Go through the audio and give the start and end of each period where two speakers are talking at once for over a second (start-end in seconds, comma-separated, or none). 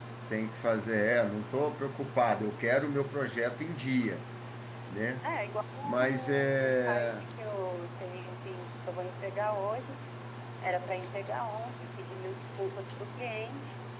5.8-7.3